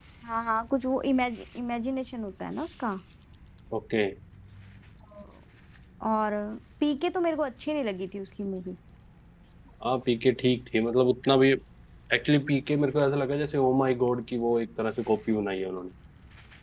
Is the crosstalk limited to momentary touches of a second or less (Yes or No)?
Yes